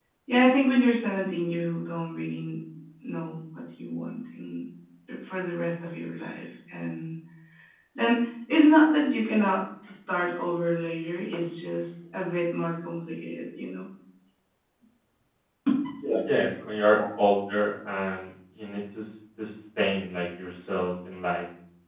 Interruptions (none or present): none